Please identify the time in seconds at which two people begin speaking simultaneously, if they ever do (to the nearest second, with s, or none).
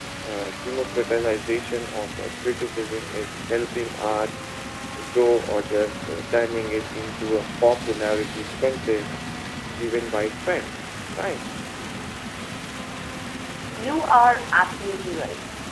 none